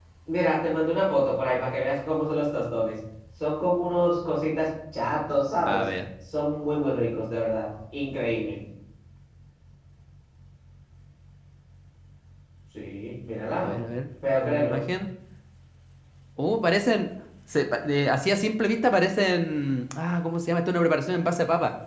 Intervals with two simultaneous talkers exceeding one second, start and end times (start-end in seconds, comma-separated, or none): none